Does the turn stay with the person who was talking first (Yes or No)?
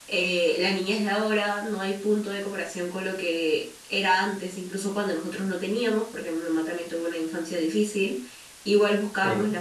Yes